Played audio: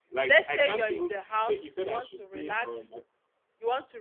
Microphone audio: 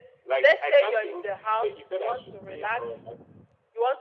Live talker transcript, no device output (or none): none